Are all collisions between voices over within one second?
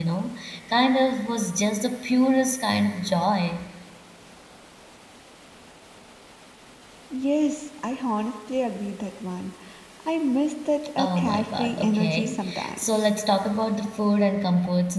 No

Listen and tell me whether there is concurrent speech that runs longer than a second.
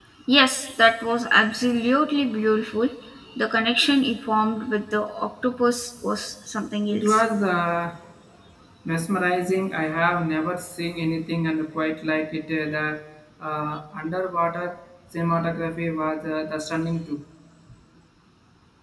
No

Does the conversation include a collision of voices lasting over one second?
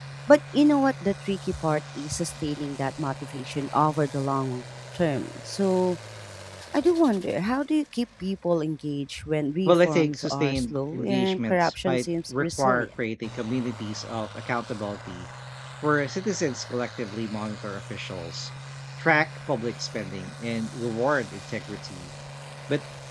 Yes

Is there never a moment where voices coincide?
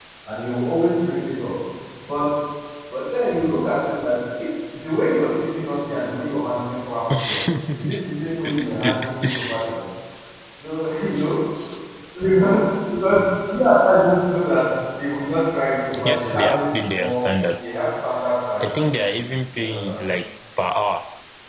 No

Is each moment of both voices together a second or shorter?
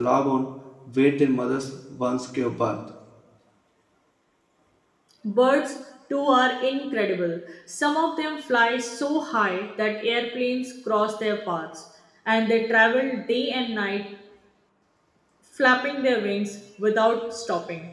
Yes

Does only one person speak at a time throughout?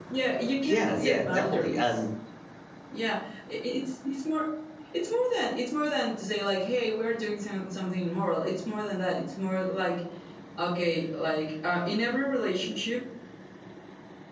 No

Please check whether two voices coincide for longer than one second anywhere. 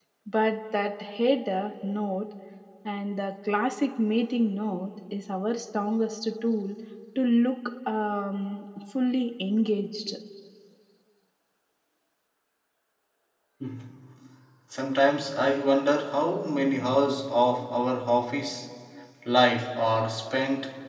No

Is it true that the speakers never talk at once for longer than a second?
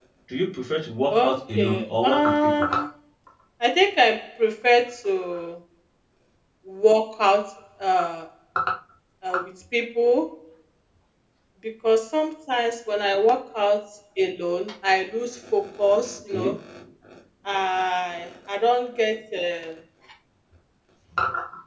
No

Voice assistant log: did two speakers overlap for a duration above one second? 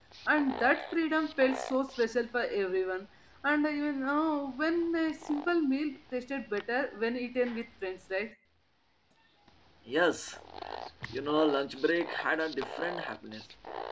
No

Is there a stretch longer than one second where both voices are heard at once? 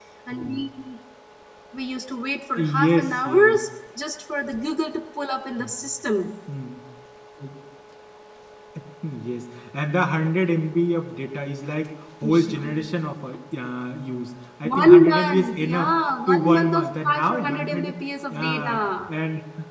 Yes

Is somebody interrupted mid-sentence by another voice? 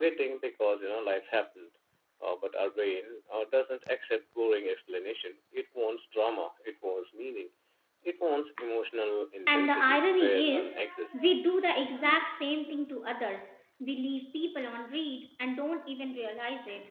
Yes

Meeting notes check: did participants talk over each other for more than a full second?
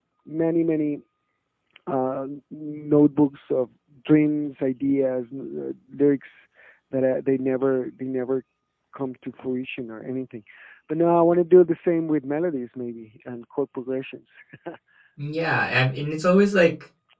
No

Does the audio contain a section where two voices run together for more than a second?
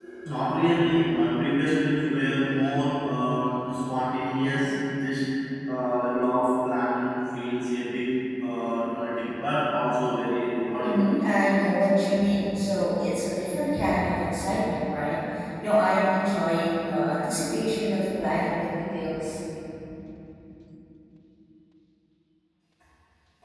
No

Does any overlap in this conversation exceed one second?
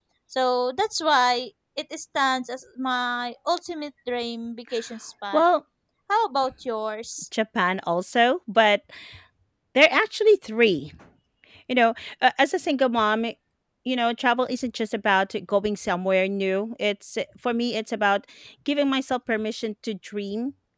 No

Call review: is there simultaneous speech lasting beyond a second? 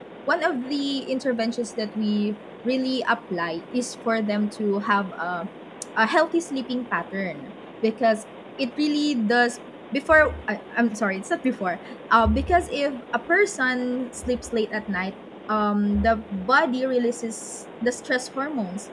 No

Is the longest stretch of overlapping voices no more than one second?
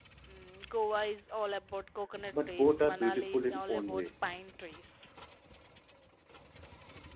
No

